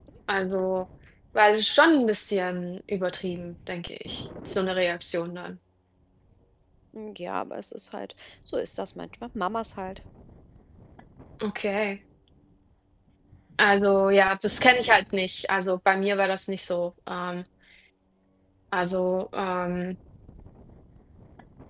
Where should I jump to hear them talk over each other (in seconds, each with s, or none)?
none